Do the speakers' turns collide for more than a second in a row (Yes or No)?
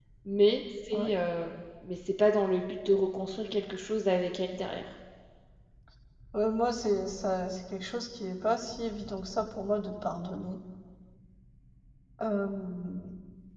No